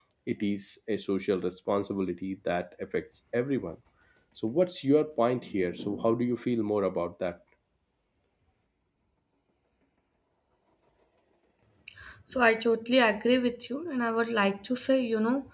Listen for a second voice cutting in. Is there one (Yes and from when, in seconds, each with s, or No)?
No